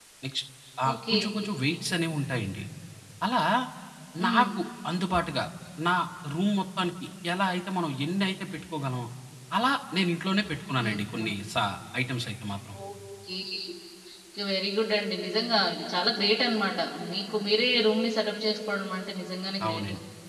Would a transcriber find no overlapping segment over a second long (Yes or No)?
Yes